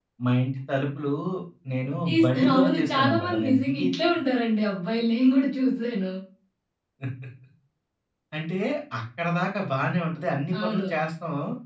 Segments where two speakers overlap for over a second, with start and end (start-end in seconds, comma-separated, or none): 2.1-3.9